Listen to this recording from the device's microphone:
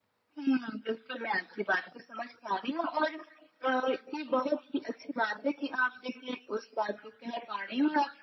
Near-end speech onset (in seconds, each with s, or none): none